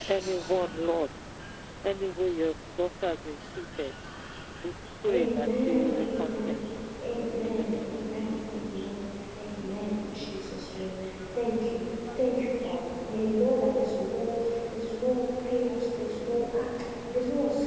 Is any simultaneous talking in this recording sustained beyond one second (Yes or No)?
Yes